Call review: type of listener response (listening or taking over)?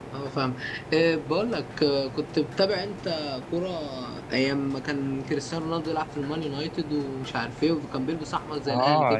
taking over